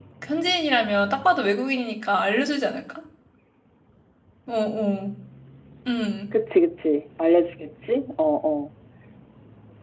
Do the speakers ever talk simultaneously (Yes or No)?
No